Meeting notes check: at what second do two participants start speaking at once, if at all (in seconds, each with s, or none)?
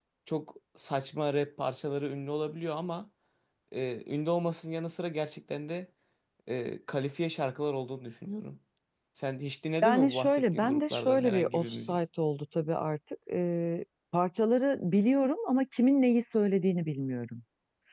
9.8 s